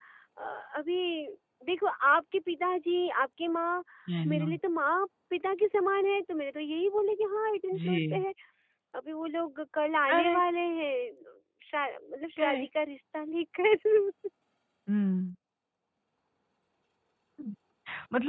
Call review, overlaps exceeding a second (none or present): none